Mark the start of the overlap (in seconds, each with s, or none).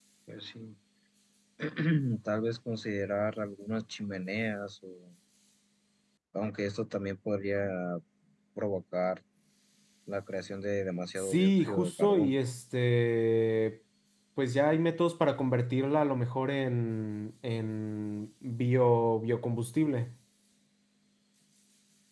11.2 s